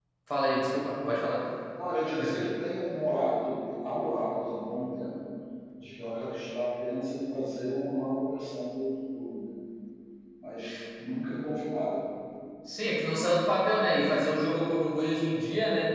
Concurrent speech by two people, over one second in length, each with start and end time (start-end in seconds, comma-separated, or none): none